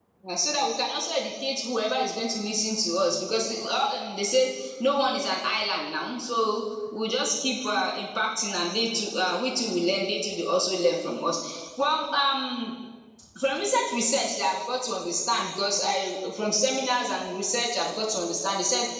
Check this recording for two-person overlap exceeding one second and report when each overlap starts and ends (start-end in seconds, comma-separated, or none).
none